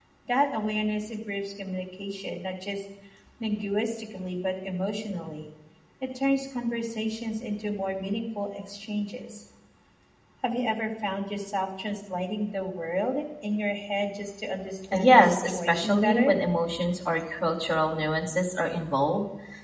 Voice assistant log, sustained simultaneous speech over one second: present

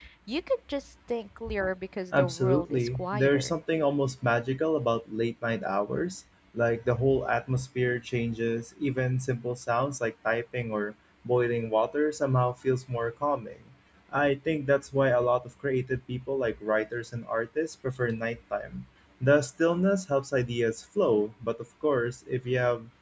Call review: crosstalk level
present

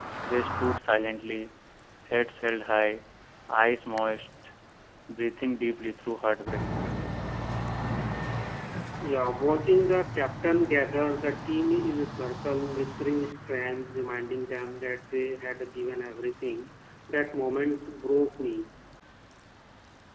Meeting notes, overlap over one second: none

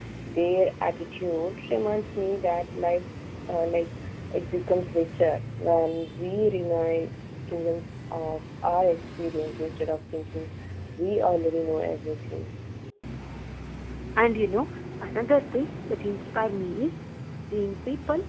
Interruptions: none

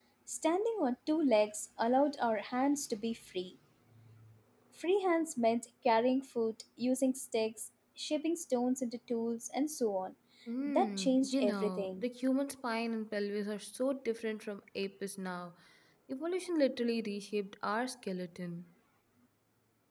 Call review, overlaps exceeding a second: present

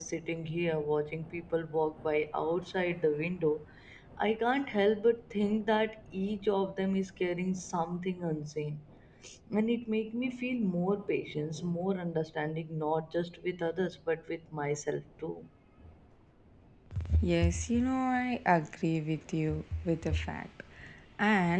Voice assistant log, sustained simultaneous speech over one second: none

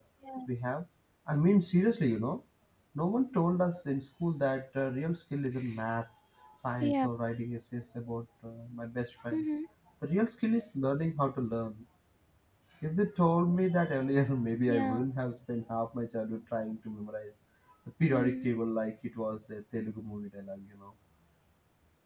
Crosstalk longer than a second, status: none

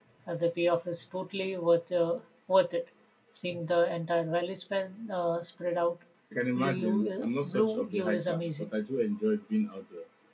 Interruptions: present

